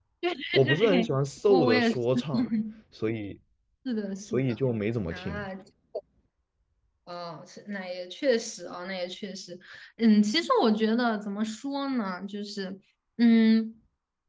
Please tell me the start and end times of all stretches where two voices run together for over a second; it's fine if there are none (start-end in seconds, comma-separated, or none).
none